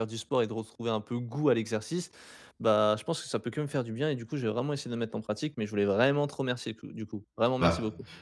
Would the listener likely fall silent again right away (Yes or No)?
No